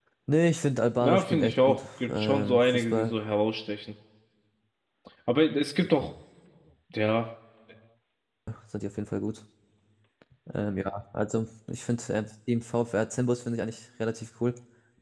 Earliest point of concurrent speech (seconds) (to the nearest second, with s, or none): 1 s